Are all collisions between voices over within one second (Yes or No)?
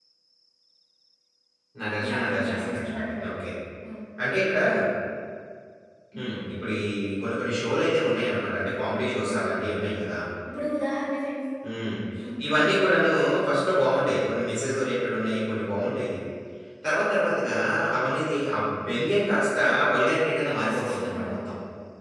No